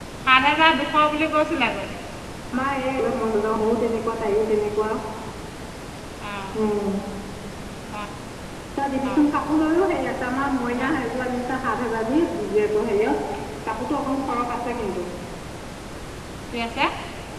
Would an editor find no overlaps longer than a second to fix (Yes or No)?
Yes